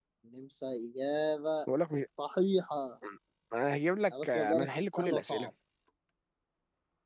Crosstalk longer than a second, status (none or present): present